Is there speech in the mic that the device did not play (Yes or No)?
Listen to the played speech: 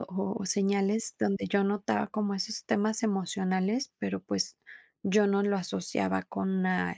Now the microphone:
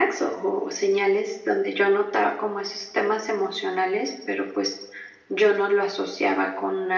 No